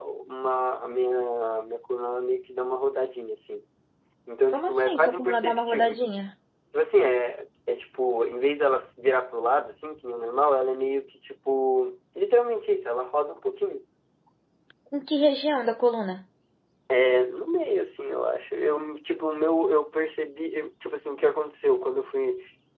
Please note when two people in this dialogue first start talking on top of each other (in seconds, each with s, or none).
4.5 s